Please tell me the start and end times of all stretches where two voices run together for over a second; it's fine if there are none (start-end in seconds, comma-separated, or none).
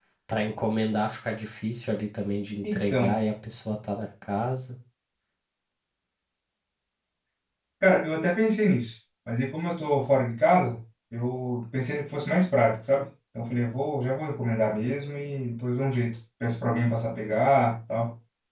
none